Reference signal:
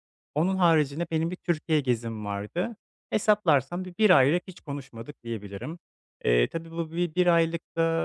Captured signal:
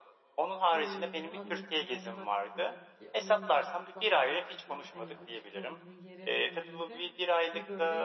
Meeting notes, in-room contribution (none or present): present